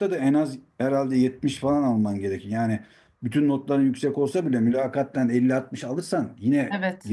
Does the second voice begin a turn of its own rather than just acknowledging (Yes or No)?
Yes